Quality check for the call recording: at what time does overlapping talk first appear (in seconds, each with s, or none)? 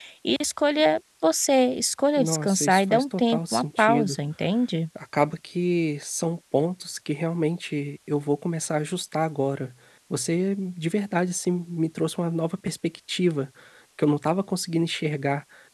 2.2 s